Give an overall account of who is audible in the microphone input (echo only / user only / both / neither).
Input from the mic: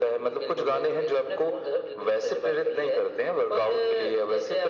echo only